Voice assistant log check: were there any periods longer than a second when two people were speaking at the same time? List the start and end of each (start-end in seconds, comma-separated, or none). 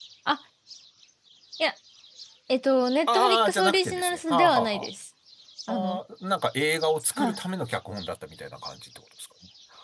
3.1-4.9